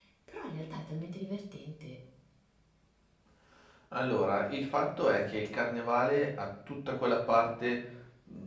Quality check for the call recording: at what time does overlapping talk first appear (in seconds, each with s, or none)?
none